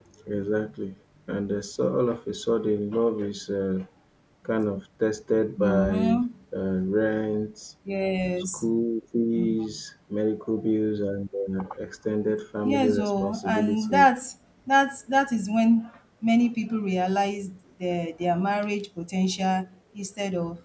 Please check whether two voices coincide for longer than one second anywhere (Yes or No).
Yes